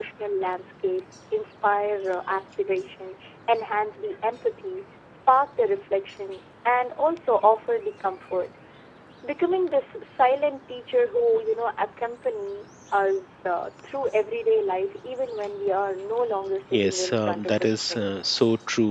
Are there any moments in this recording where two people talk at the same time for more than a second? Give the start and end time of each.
16.7-18.1

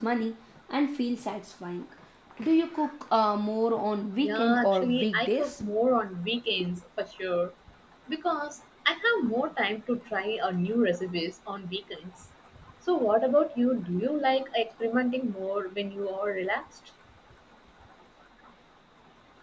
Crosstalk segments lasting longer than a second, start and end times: 4.2-5.6

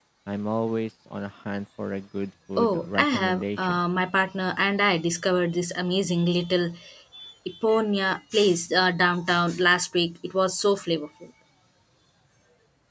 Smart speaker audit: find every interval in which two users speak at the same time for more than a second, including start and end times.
2.6-3.8

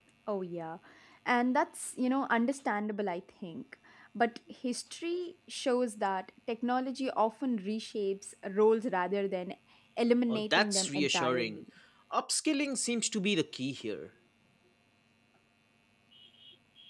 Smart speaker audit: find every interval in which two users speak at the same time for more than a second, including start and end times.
10.3-11.6

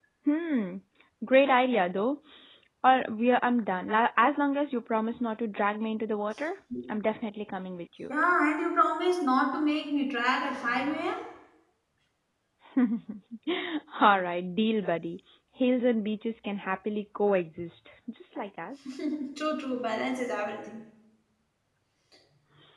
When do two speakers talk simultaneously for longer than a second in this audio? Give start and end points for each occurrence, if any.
none

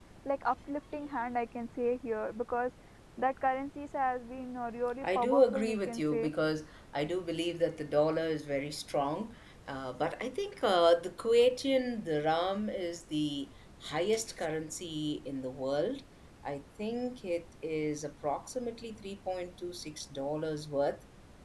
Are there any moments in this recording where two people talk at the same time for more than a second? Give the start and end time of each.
5.0-6.3

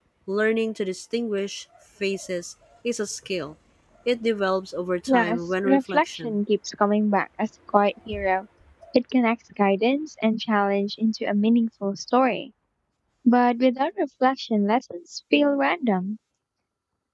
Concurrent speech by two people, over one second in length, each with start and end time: 5.1-6.4

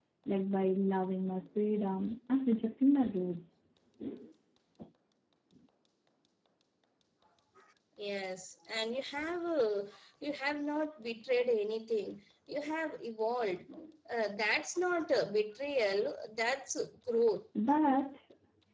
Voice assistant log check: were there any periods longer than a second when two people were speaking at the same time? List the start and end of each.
none

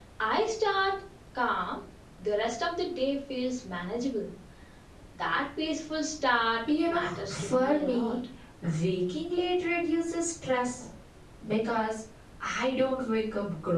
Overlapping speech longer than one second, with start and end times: 6.9-8.2

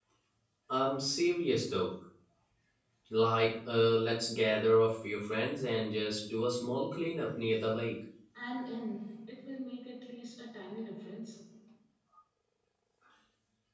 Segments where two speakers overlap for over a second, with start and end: none

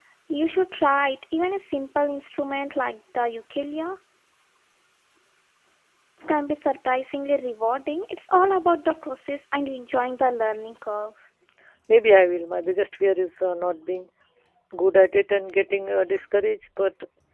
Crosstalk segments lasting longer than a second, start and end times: none

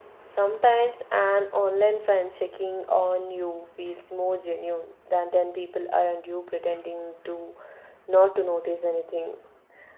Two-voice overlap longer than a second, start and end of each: none

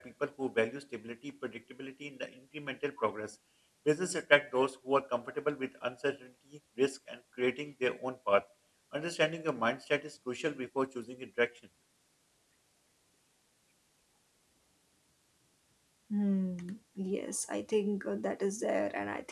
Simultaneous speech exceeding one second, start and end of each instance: none

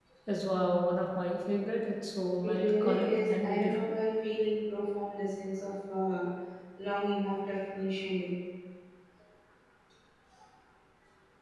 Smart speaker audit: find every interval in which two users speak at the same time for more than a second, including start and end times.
2.4-3.9

